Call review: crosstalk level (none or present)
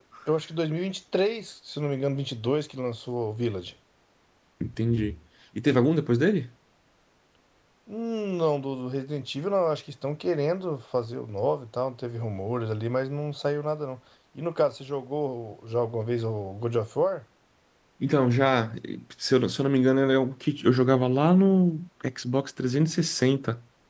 none